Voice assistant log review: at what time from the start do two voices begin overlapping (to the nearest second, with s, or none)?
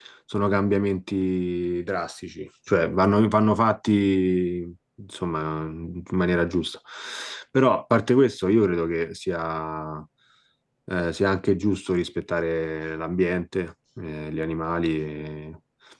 none